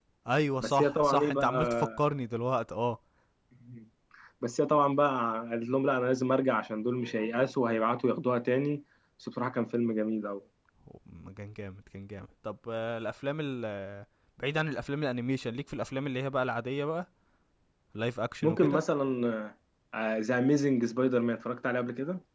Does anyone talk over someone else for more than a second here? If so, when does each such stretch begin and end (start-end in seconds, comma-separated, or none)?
0.6-2.0